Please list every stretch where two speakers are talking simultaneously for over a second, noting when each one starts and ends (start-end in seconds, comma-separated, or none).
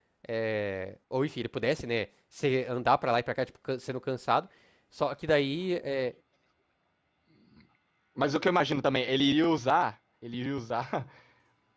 none